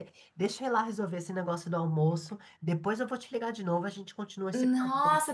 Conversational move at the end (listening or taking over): taking over